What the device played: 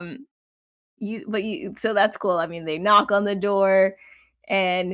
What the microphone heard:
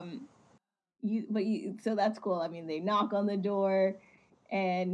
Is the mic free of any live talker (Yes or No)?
Yes